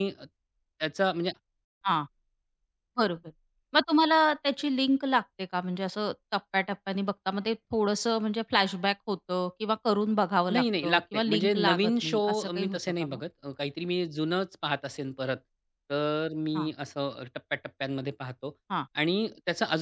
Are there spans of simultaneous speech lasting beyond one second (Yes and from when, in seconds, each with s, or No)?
Yes, from 10.5 s